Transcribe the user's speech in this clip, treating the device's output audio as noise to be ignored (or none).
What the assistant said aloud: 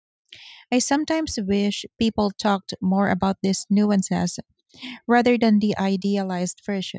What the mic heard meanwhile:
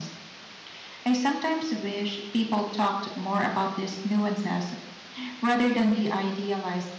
none